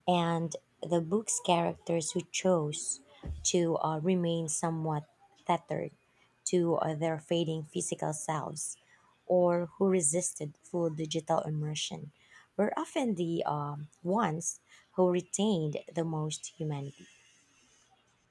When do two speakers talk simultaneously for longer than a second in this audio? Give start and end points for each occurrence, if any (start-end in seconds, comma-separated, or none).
none